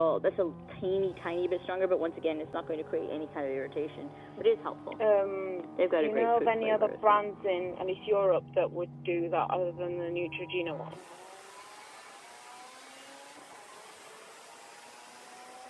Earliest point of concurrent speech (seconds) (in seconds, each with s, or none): 6.0 s